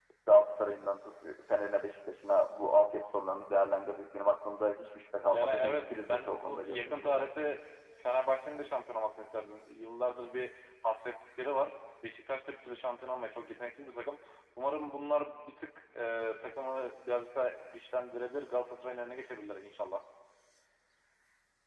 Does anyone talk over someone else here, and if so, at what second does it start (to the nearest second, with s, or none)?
5 s